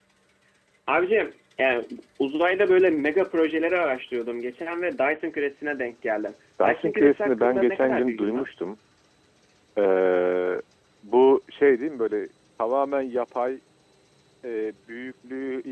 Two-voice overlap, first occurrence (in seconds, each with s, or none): 6.6 s